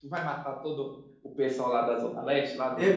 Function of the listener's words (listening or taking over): taking over